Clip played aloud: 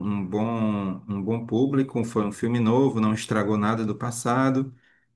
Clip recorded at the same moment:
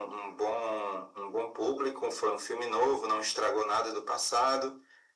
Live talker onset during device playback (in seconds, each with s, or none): none